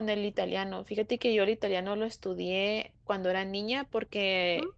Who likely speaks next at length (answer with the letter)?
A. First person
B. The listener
A